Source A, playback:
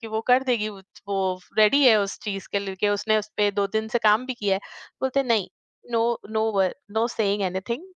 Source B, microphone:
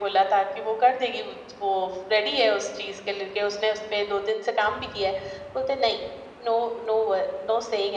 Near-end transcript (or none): none